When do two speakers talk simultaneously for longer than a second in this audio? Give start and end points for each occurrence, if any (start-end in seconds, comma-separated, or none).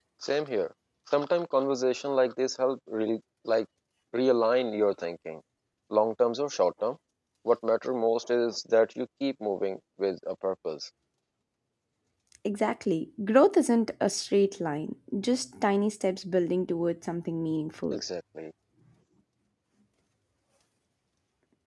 none